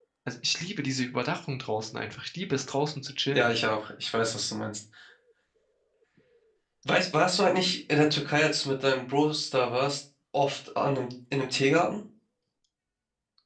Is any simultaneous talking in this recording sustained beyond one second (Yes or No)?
No